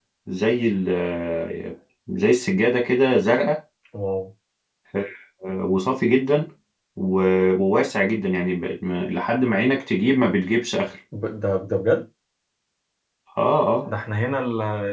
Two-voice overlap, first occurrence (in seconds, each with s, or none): none